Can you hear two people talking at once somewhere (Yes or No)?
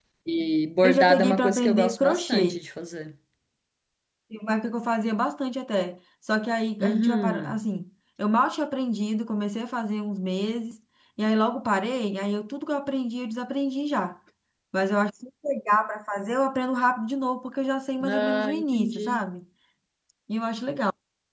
Yes